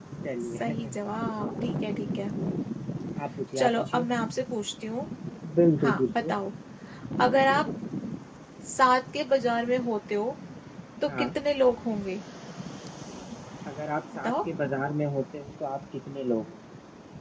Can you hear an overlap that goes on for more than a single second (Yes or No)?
No